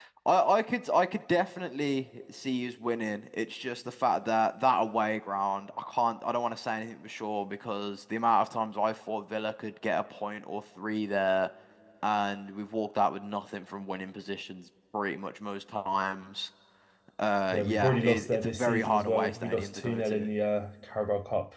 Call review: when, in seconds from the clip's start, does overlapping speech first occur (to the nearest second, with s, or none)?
18 s